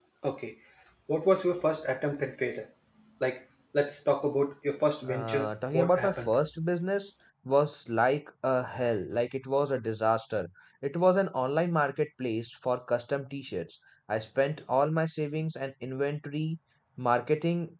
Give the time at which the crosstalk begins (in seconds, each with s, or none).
5.1 s